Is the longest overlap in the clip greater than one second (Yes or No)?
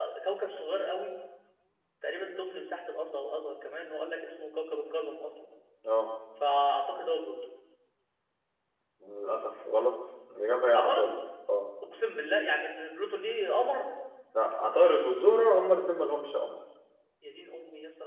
No